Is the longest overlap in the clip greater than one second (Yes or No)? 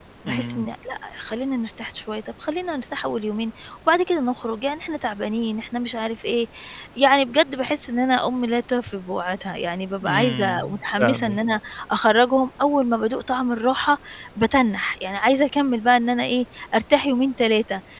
Yes